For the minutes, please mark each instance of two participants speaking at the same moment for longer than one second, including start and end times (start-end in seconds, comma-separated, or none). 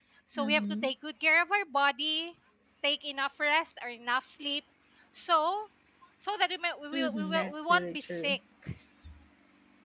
6.9-8.4